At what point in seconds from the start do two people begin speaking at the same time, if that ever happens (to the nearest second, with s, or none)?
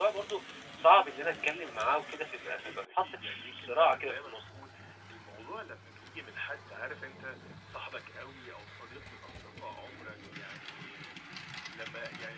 2 s